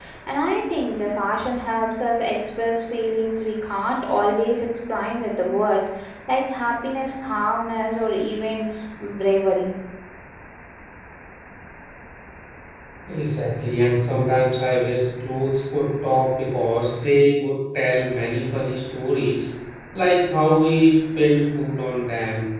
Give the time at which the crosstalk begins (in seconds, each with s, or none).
none